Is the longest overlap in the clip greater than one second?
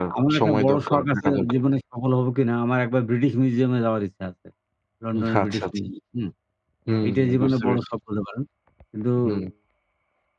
Yes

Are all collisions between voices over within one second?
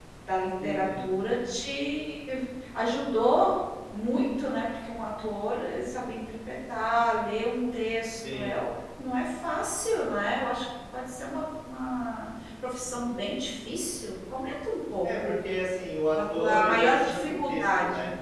No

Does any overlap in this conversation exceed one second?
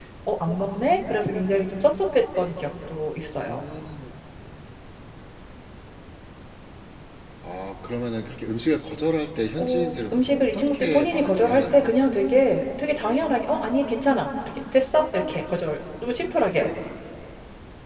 Yes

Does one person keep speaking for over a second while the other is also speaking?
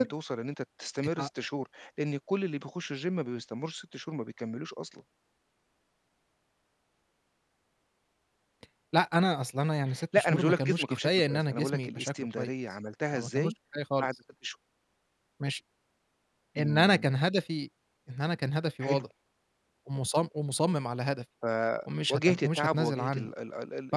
Yes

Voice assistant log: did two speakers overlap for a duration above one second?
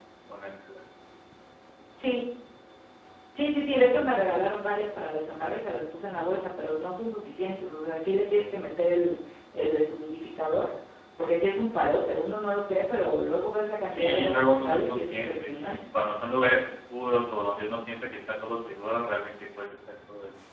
Yes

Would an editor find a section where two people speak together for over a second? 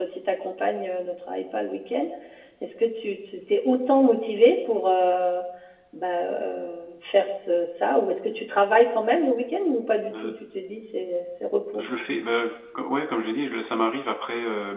No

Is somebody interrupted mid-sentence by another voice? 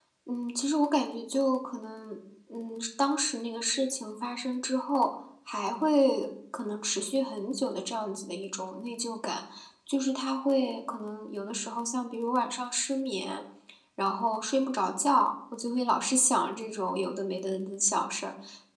No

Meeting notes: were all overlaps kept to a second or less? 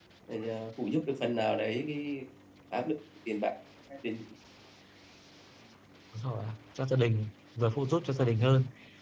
Yes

